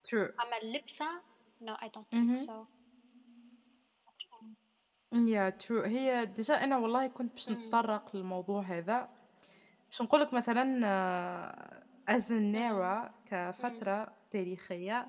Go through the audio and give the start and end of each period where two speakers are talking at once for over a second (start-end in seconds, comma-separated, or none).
none